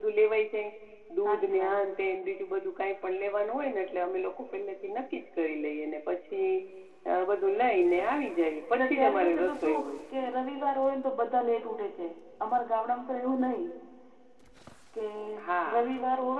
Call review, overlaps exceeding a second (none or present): present